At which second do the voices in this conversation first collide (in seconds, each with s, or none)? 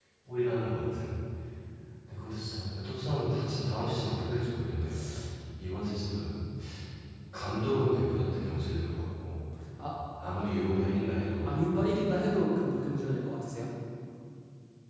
none